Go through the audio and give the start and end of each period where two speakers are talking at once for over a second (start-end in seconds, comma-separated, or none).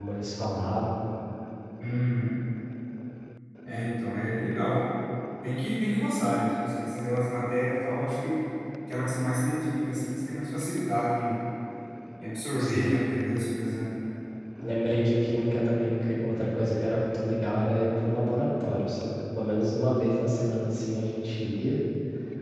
none